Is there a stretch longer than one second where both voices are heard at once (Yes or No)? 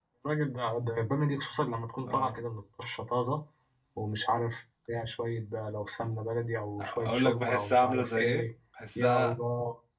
Yes